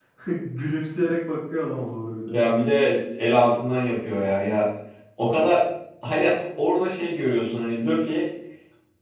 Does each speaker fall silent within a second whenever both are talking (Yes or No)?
Yes